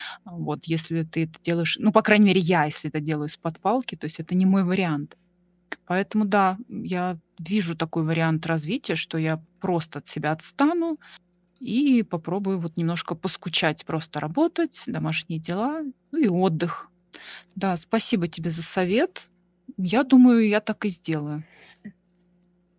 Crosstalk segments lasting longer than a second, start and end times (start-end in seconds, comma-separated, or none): none